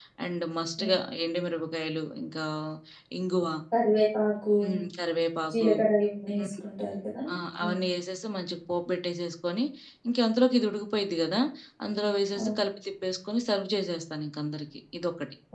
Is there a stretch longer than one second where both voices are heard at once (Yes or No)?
No